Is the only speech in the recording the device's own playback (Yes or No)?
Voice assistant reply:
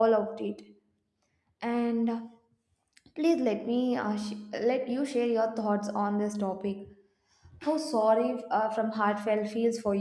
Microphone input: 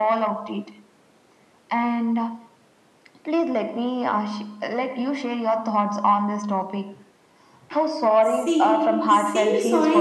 No